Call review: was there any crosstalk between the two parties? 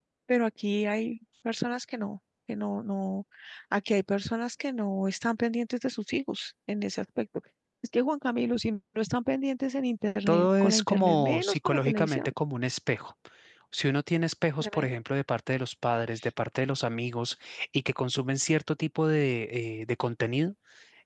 Yes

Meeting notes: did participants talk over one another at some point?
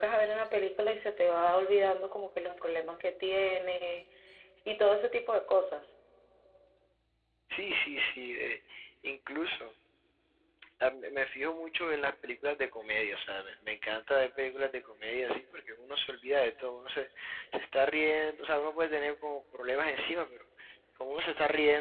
No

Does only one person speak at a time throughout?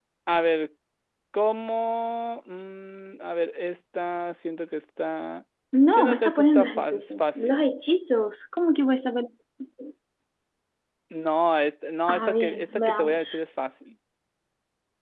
No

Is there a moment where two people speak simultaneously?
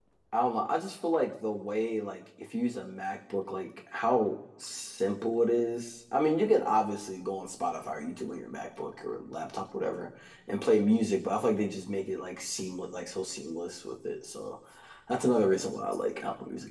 No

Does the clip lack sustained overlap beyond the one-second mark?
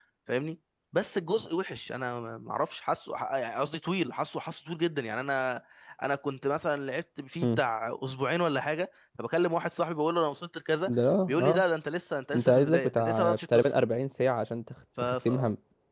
No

